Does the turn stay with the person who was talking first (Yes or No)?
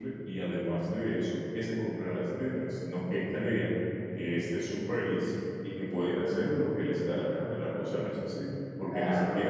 No